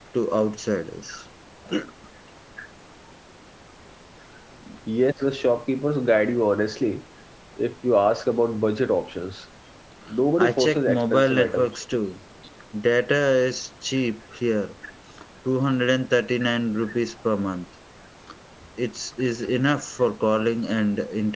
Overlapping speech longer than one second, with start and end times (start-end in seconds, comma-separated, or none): 10.4-11.7